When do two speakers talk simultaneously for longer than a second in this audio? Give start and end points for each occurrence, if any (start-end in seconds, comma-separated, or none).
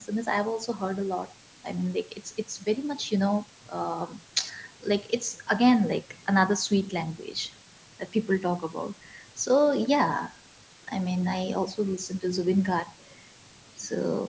none